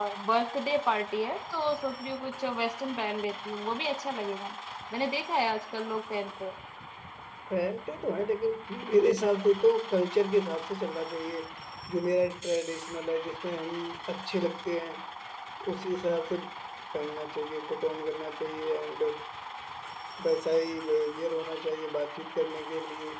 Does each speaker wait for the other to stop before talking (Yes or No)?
Yes